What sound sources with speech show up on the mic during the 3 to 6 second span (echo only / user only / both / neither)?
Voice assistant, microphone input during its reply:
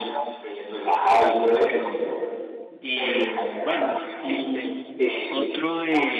both